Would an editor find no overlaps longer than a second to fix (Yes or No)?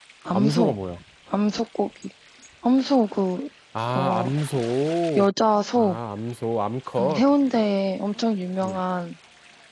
Yes